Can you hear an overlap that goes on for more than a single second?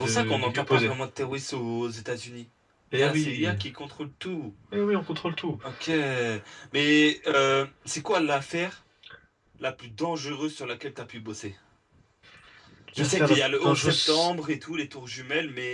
Yes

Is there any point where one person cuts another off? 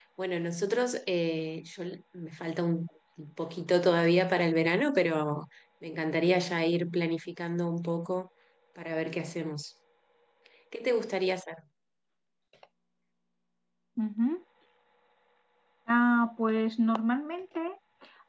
No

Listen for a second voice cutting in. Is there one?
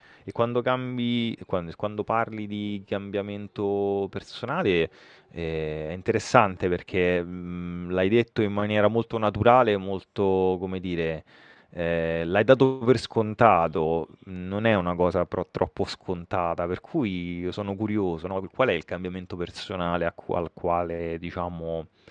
No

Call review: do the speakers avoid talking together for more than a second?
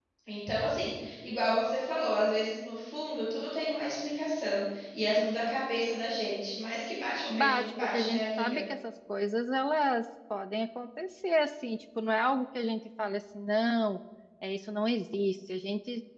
No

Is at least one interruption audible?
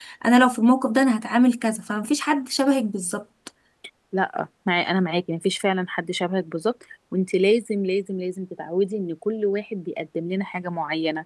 No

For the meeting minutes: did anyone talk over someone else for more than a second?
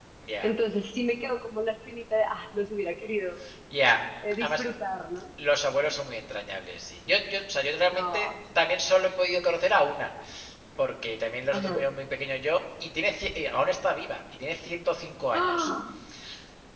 No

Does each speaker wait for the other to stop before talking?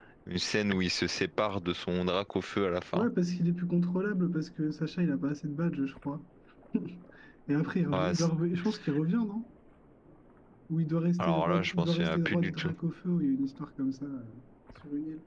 No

